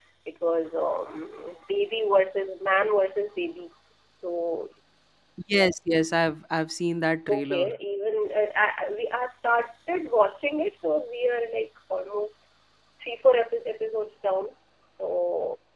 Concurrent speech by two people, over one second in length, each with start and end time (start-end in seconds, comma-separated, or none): none